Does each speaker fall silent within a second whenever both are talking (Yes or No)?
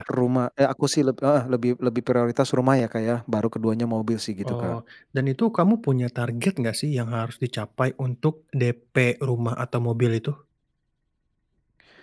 Yes